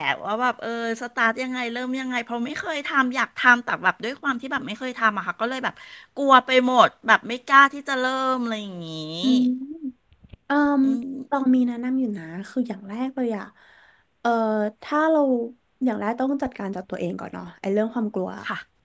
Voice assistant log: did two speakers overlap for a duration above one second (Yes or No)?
No